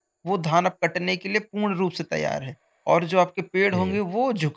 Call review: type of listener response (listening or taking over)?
listening